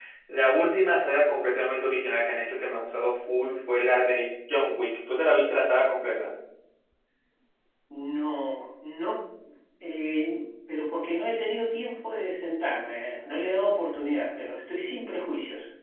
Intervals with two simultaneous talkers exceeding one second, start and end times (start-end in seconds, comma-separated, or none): none